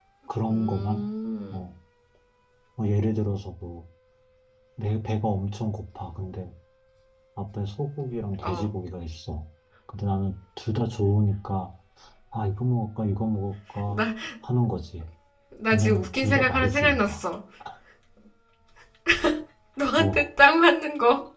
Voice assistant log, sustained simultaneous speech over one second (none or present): present